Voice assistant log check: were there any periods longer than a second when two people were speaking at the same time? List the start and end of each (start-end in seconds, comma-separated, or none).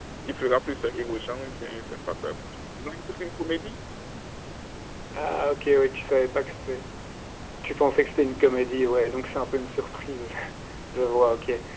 none